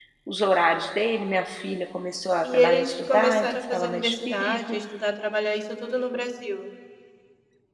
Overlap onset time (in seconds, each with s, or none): 2.4 s